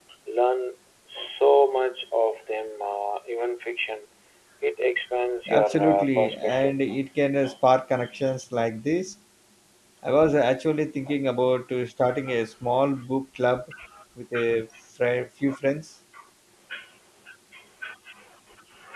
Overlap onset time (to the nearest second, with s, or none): 5 s